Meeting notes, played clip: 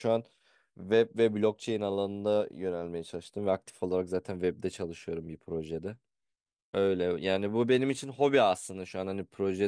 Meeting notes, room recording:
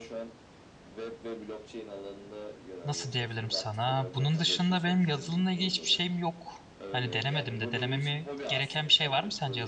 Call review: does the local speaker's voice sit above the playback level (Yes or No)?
Yes